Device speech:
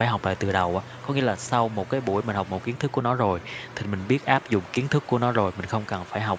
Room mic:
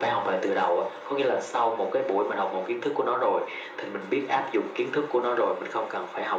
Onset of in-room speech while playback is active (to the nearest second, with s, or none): none